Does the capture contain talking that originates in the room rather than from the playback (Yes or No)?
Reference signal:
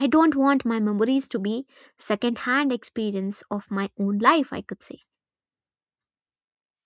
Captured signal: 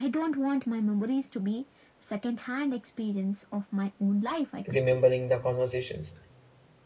Yes